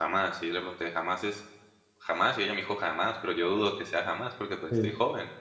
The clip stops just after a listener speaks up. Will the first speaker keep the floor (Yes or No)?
No